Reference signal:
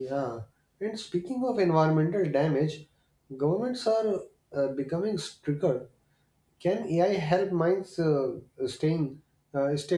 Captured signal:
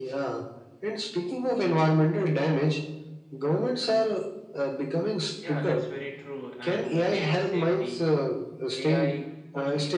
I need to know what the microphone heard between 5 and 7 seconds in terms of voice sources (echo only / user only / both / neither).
both